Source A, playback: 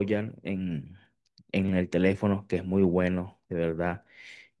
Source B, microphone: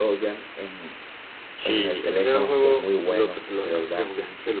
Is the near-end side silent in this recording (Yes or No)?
No